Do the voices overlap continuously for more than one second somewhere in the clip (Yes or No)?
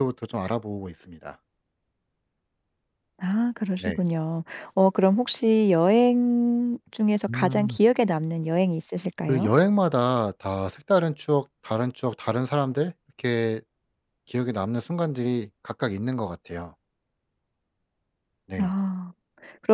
No